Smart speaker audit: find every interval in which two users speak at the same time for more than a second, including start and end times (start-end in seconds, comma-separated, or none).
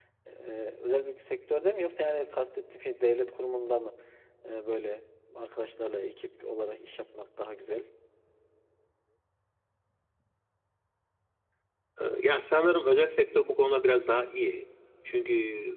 none